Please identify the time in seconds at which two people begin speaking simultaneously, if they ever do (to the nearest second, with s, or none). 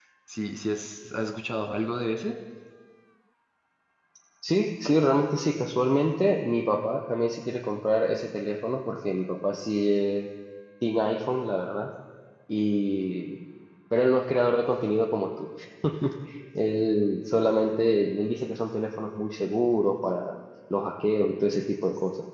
none